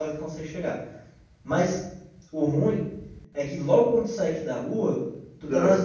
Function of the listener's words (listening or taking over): listening